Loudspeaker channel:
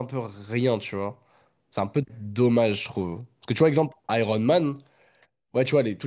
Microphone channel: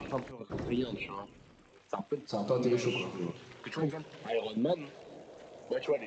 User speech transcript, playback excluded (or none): C'est un peu un TV show, quoi.